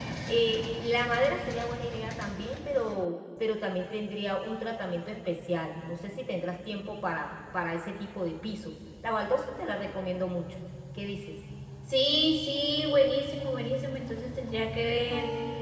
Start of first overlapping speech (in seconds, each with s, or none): none